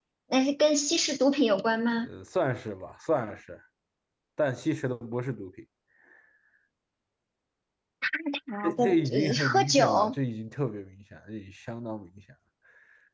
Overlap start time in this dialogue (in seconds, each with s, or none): 8.6 s